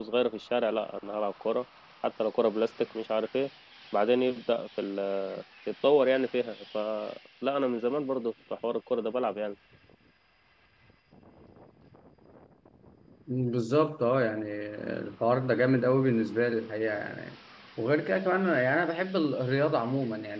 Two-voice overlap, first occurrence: none

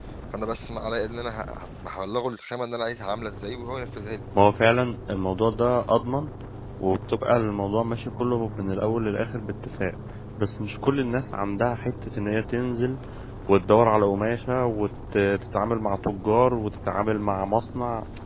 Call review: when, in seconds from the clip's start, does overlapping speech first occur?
none

